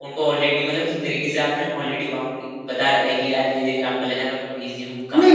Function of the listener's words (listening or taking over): taking over